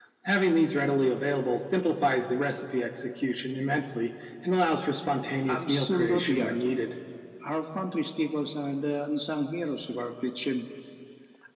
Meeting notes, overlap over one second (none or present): present